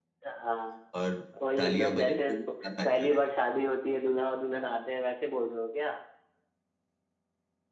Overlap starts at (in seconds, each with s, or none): 1.6 s